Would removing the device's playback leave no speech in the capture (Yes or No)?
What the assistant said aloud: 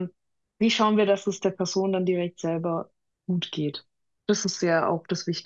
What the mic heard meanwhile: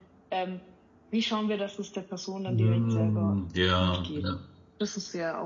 No